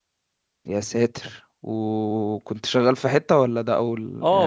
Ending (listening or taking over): taking over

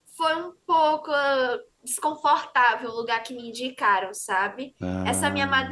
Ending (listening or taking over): listening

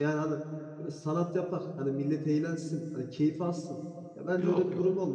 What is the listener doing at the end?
listening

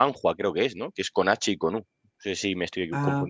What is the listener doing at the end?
listening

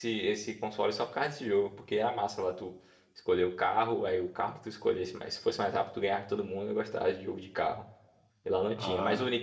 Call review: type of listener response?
listening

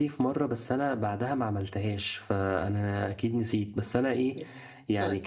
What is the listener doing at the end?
listening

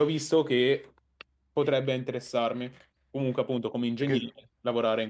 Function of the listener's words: listening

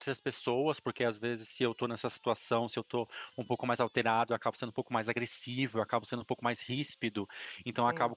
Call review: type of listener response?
listening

